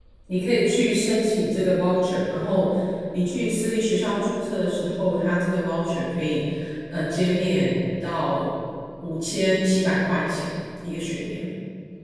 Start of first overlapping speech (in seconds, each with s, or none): none